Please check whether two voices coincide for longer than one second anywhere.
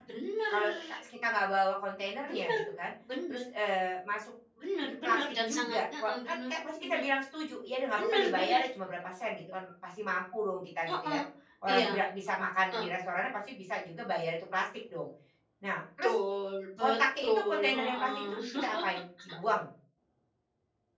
Yes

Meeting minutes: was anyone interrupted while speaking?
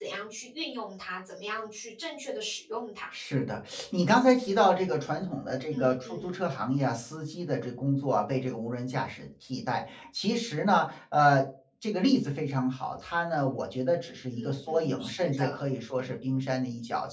Yes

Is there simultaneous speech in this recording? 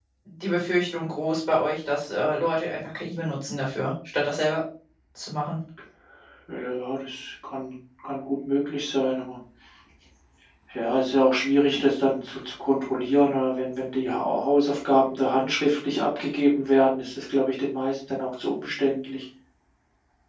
No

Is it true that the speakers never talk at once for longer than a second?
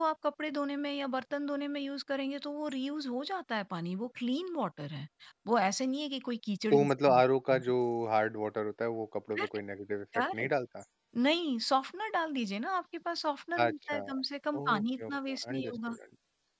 No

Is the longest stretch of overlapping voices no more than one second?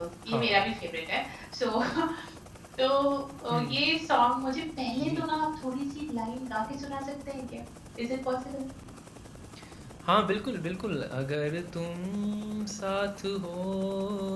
Yes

